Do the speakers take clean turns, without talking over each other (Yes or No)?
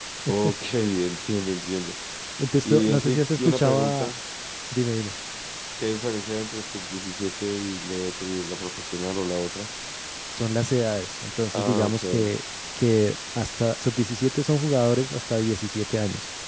No